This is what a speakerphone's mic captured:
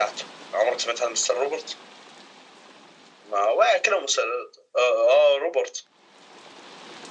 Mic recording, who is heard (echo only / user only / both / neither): echo only